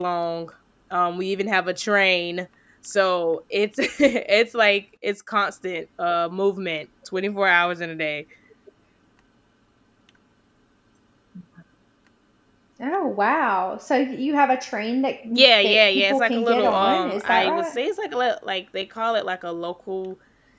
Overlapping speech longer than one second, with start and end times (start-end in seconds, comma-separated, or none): 15.6-17.8